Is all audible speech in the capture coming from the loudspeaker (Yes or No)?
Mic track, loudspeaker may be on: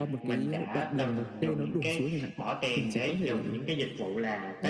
No